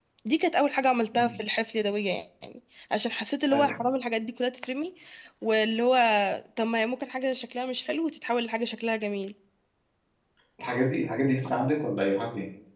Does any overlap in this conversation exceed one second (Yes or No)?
No